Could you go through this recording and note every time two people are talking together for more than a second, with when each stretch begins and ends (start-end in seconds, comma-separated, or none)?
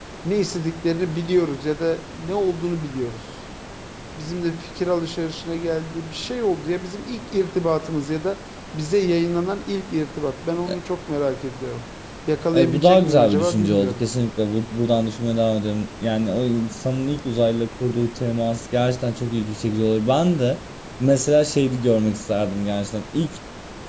12.5-14.1